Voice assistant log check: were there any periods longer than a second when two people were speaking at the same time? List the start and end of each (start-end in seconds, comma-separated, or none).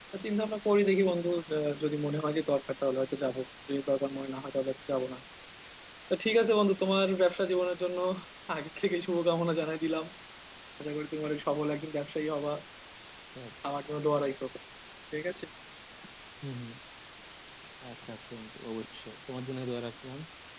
none